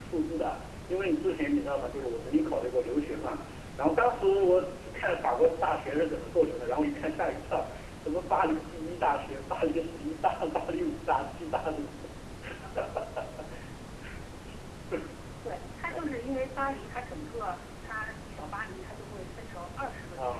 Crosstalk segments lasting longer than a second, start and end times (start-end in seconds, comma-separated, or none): none